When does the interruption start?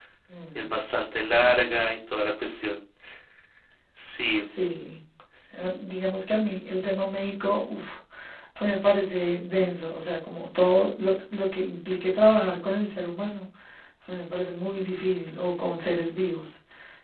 none

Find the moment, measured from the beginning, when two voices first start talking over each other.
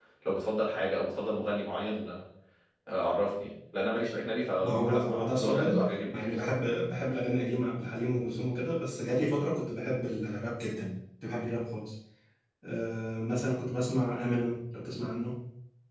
4.6 s

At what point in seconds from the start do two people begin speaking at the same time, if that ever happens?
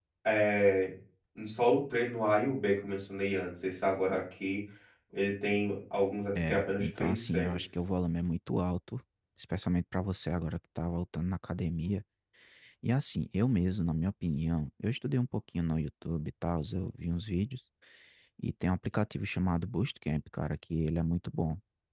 6.3 s

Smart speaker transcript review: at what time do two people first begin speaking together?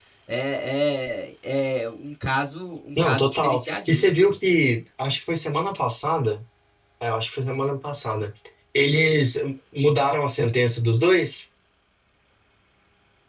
3.0 s

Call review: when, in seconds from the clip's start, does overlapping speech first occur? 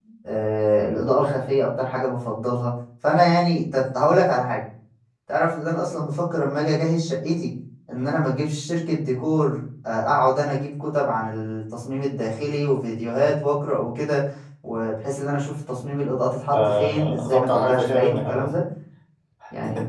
16.5 s

